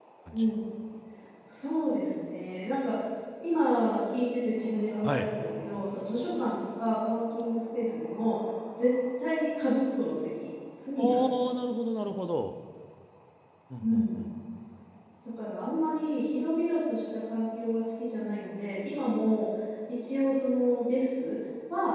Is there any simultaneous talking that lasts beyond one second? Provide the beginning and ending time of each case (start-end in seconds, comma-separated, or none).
none